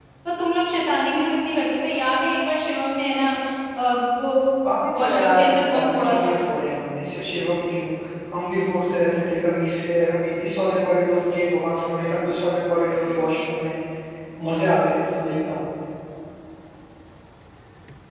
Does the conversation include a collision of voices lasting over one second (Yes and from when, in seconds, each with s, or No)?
Yes, from 4.9 s